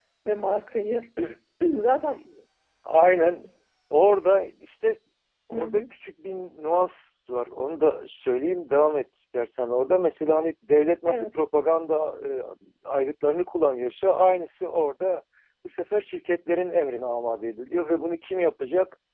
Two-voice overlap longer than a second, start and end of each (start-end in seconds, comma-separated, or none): none